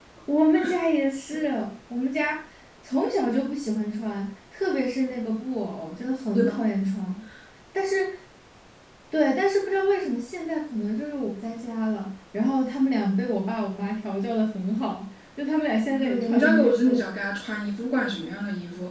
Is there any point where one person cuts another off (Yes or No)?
Yes